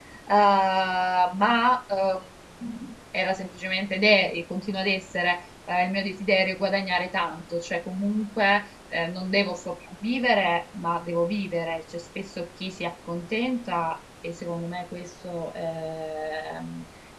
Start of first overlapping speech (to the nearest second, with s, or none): none